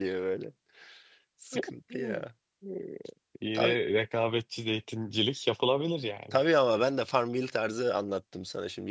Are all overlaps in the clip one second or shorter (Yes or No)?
Yes